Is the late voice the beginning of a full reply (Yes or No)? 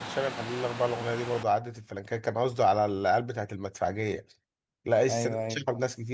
No